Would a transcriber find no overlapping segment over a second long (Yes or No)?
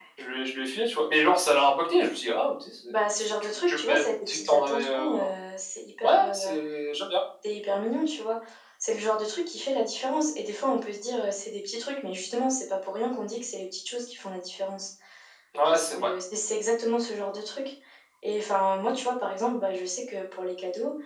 No